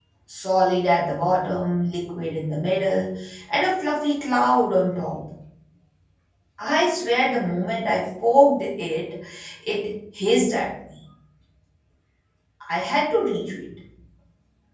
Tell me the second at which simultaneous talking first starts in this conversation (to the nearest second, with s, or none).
none